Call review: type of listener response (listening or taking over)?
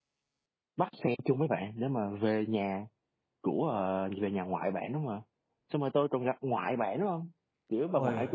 listening